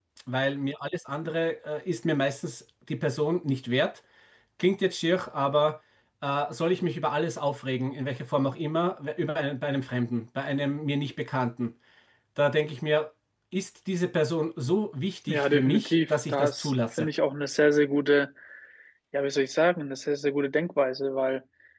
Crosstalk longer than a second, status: present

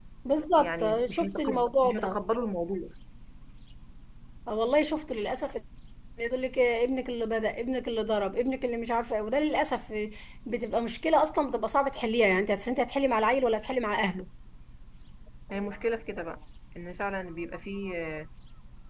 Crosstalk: present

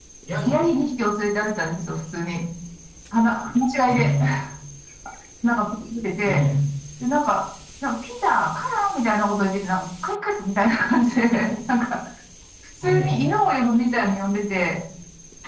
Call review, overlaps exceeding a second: none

